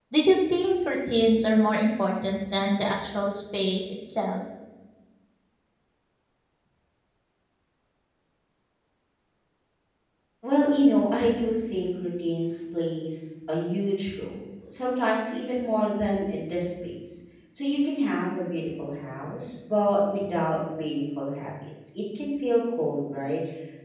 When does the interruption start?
none

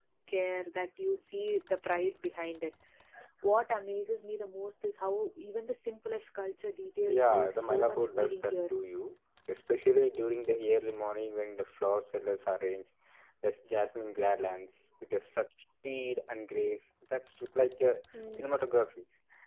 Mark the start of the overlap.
7.1 s

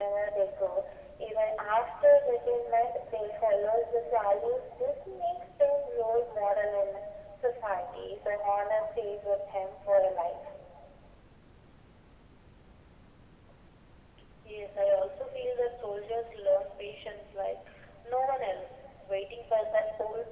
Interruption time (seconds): none

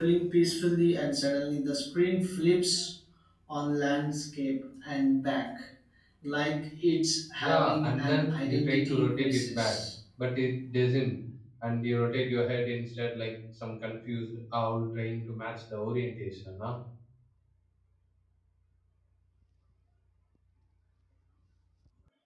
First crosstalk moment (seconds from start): 7.4 s

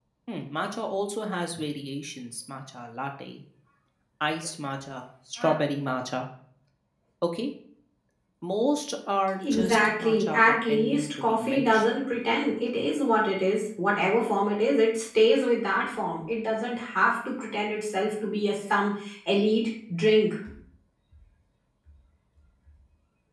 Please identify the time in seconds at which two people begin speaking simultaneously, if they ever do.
9.4 s

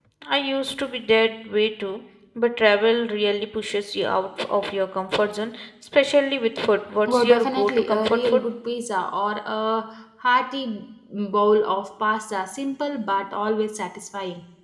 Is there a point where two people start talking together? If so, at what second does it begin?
7.1 s

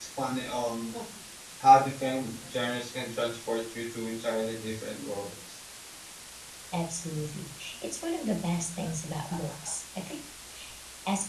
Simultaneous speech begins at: none

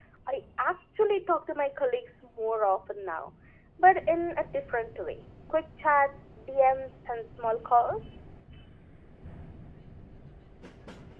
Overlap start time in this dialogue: none

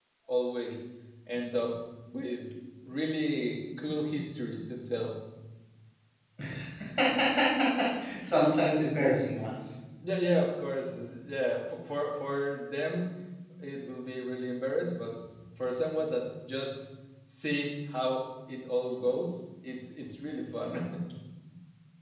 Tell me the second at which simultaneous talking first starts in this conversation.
none

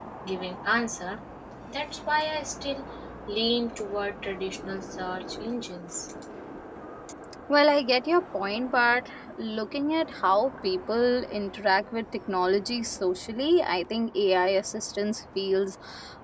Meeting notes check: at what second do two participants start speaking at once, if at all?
none

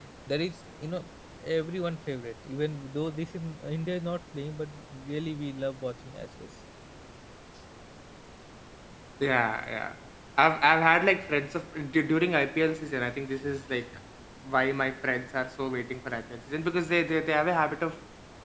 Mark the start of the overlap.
none

